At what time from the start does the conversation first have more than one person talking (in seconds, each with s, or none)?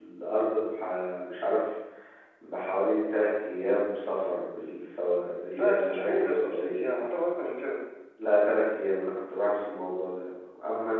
5.5 s